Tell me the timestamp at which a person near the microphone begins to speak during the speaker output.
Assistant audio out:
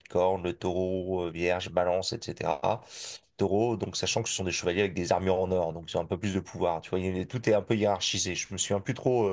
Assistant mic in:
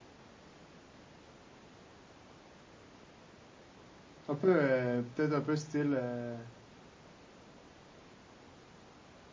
4.3 s

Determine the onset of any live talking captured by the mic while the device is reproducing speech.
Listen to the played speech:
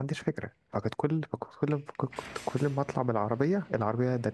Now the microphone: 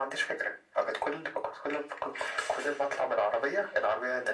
none

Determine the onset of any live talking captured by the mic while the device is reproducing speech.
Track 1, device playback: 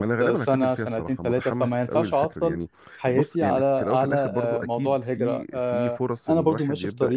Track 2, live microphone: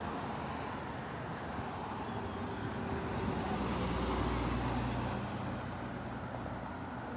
none

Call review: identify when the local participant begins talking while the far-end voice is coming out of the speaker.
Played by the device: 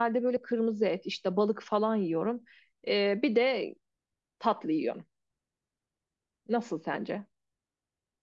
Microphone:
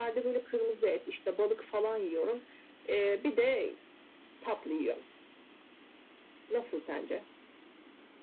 none

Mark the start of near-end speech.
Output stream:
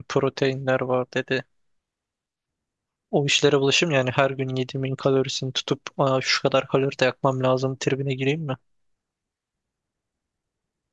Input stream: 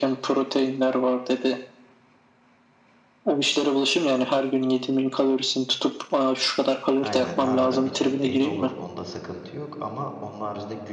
7.0 s

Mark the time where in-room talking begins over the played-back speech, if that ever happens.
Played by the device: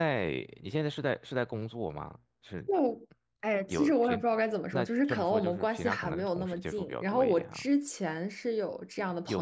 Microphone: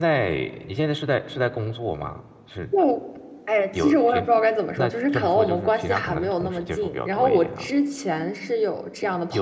none

